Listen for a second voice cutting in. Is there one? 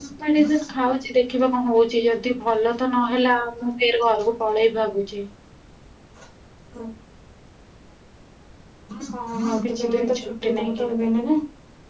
Yes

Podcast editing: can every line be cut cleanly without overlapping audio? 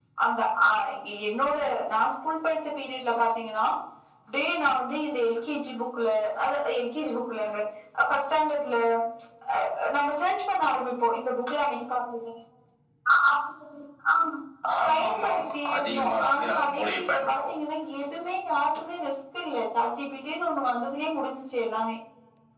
No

